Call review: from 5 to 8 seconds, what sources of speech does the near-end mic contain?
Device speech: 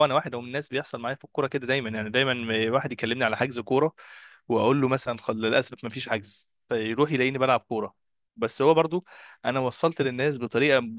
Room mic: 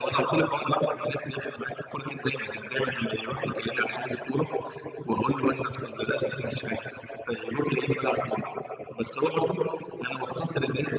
echo only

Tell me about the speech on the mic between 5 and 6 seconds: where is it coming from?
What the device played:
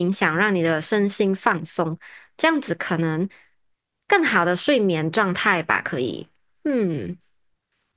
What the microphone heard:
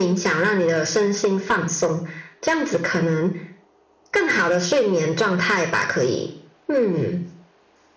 echo only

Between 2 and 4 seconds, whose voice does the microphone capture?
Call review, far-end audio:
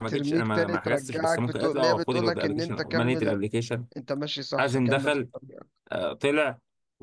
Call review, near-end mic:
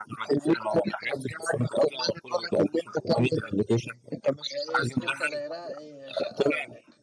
echo only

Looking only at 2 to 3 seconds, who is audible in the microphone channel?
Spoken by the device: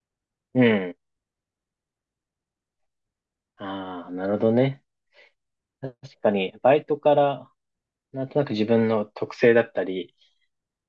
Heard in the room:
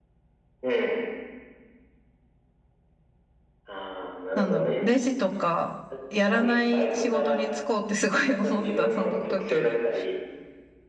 neither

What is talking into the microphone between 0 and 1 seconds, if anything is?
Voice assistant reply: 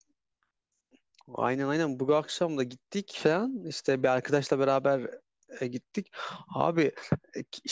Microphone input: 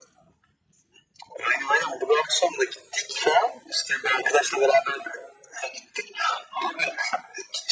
neither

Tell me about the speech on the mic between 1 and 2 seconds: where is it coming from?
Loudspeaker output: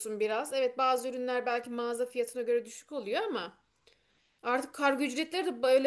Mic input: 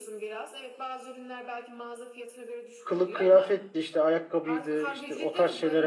echo only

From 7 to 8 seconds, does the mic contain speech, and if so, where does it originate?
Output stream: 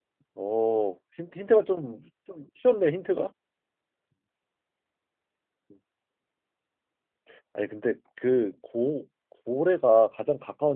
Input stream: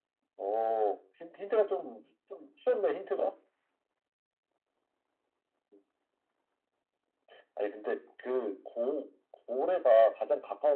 echo only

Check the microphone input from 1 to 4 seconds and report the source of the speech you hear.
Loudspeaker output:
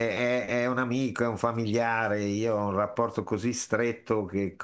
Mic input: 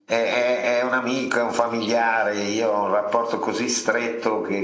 echo only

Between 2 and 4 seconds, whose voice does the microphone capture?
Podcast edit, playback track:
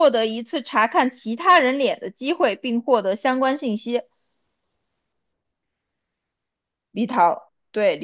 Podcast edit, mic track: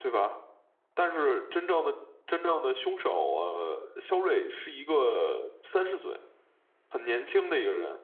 user only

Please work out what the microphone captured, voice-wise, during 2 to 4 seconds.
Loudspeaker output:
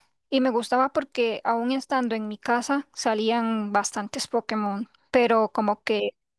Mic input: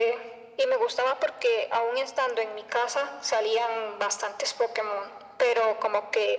echo only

